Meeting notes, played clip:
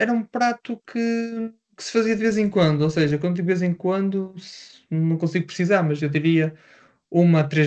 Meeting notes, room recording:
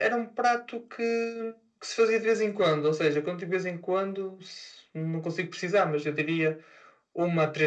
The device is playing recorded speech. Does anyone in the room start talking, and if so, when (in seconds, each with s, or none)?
none